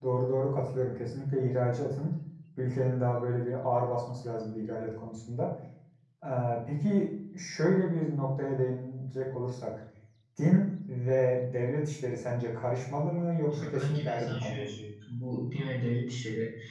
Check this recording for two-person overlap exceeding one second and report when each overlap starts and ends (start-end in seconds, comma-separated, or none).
13.5-14.7